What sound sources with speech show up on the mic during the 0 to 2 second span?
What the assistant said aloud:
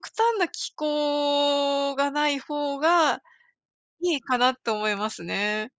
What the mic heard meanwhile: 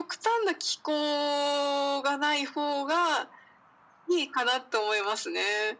echo only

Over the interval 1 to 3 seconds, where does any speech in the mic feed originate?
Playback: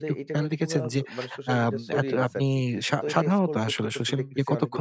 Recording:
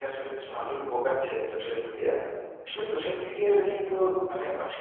user only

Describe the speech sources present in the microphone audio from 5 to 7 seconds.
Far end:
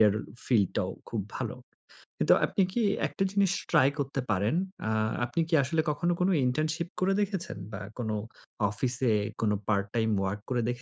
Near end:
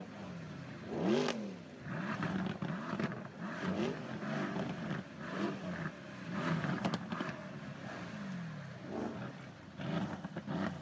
neither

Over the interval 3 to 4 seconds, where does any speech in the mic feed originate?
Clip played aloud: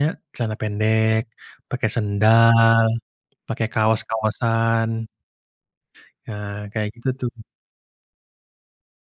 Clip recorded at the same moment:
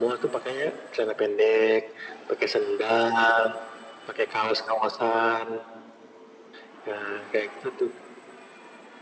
echo only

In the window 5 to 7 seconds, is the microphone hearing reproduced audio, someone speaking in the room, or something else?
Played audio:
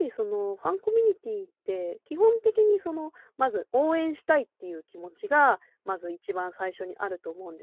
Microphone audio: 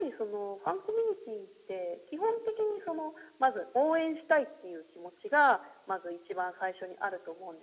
echo only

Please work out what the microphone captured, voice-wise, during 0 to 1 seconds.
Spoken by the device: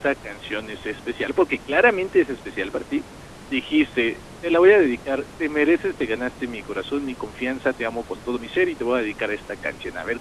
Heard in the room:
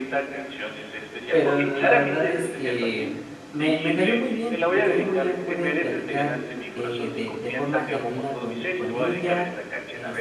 echo only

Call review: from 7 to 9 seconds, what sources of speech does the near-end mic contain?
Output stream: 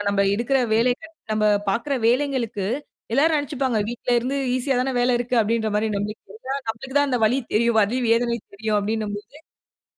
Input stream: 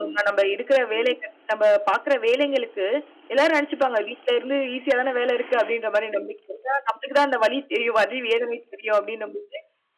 echo only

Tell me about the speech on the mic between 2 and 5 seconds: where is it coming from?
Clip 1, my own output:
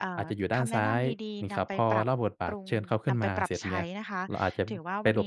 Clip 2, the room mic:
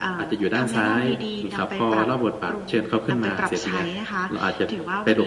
echo only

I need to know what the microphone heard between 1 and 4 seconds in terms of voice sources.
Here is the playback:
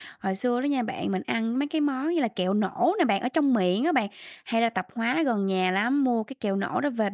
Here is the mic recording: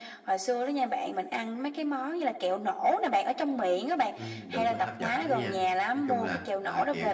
echo only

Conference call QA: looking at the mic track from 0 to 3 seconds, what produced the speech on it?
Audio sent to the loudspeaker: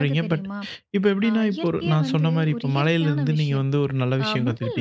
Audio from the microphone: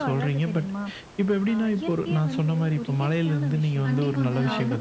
echo only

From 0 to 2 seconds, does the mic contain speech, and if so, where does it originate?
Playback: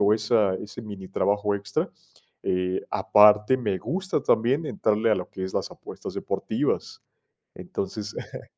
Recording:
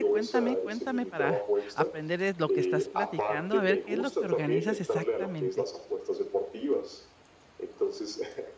both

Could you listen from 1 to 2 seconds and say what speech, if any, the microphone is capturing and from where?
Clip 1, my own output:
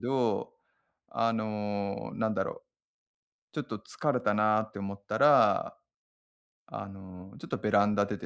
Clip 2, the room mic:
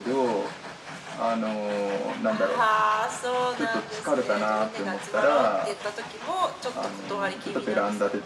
echo only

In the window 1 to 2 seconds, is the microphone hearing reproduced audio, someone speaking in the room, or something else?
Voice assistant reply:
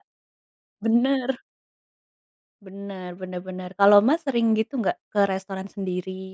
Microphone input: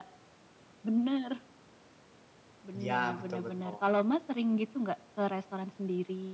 echo only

